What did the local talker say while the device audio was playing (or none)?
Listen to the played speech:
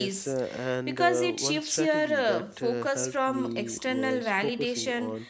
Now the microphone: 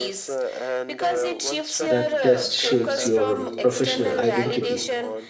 that test shapes your professional identity.